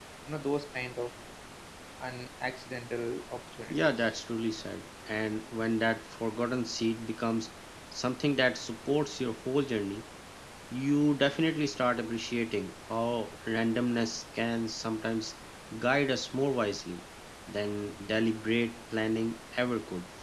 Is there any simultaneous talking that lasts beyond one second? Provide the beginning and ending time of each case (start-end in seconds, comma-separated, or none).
none